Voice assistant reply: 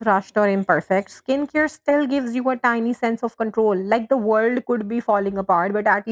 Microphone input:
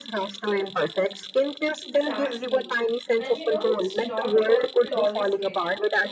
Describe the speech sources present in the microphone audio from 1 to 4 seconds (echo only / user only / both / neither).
both